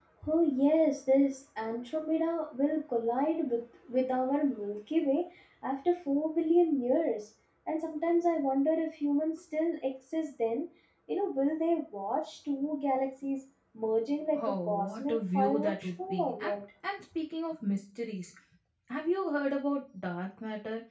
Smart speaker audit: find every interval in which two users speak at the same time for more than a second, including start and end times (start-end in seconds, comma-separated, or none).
14.3-16.6